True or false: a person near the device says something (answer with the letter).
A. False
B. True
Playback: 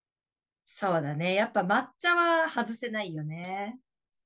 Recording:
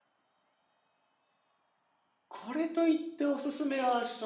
B